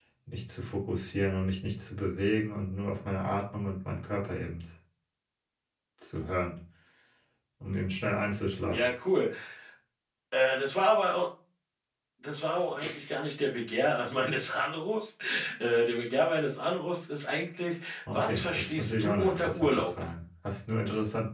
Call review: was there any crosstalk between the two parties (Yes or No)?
Yes